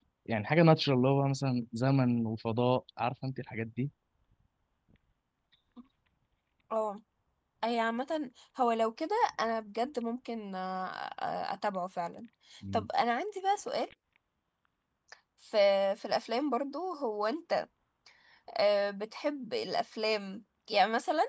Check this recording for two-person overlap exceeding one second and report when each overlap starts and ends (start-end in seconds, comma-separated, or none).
none